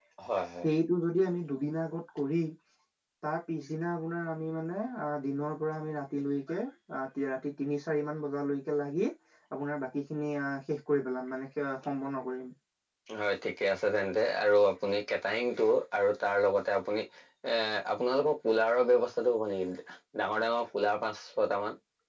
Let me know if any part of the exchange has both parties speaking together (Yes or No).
No